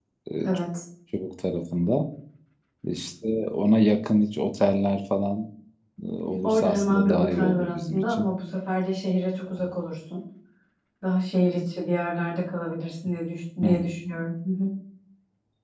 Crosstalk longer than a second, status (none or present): present